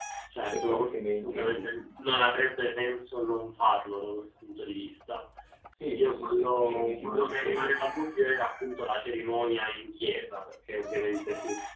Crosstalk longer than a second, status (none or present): present